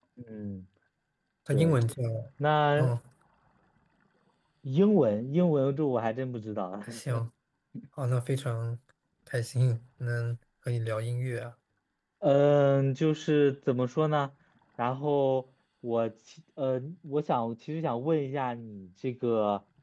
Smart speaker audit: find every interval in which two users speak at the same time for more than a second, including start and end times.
none

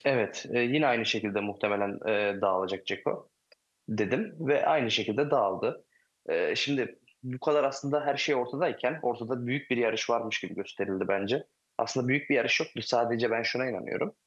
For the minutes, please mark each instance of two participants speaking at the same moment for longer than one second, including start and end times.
none

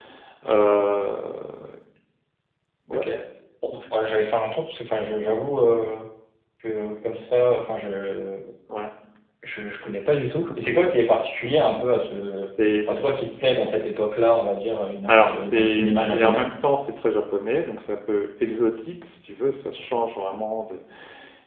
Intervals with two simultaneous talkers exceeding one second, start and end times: 15.1-16.5

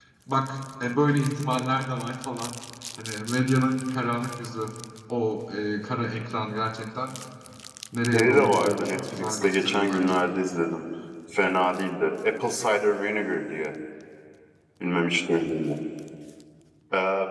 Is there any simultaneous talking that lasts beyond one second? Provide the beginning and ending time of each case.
8.1-10.1

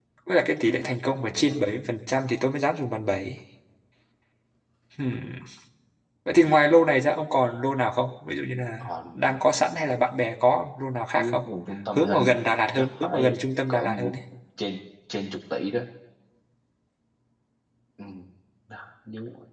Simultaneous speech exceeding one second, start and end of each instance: 12.8-14.1

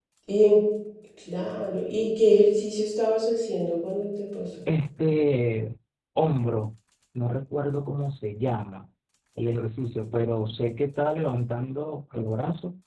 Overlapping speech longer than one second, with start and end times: none

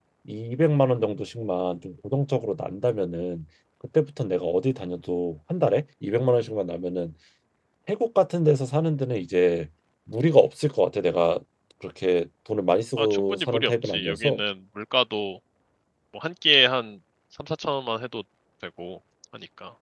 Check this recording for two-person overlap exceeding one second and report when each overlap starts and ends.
13.0-14.4

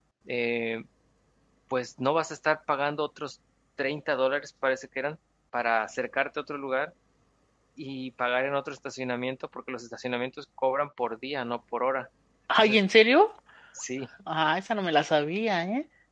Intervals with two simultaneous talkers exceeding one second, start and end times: none

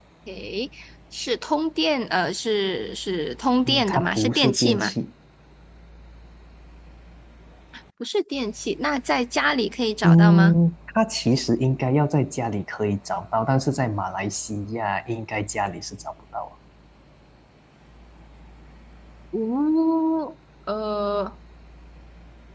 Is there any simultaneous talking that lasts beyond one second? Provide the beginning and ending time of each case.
3.6-4.9

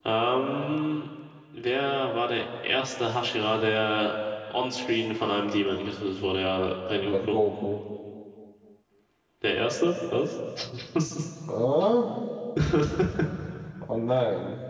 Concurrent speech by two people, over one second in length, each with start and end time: none

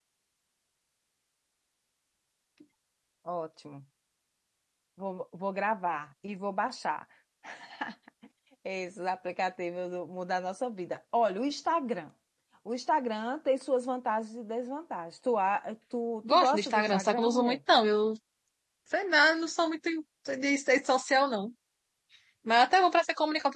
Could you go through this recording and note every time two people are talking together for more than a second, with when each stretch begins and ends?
16.3-17.6

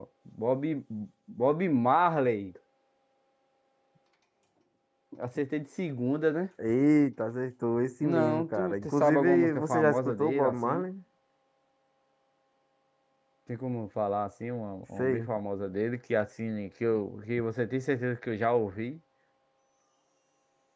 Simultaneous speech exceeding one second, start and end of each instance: 8.0-10.8

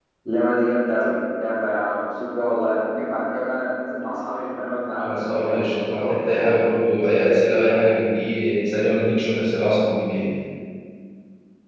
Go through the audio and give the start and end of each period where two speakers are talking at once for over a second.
5.0-6.5

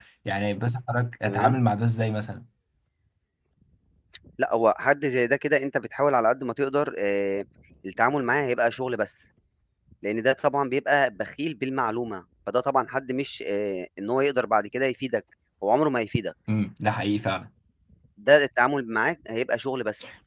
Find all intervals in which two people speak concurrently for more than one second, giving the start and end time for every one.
none

